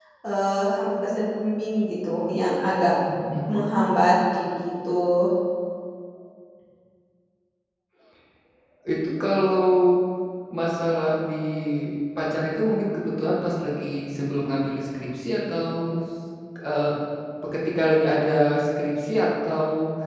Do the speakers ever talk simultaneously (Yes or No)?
No